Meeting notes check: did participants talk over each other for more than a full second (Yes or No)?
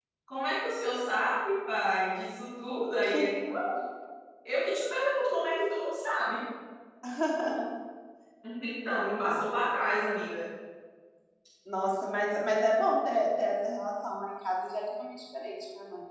No